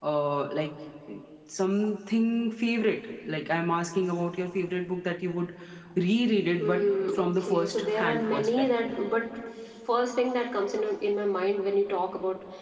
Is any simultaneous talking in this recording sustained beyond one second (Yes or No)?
Yes